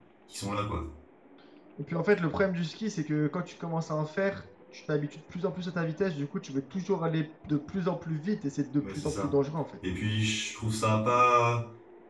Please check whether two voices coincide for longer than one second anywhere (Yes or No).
No